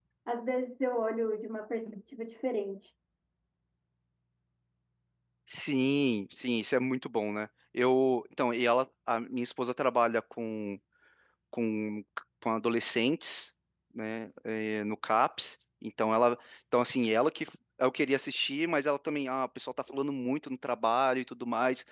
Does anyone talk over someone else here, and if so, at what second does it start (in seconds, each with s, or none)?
none